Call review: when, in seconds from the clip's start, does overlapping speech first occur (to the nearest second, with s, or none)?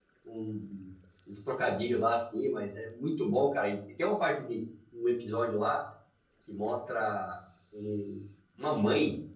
none